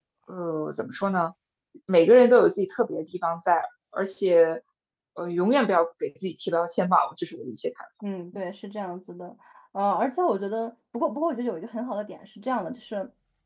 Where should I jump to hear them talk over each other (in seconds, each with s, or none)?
none